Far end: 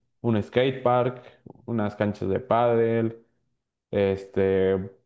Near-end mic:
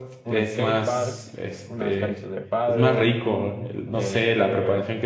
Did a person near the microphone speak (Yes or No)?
Yes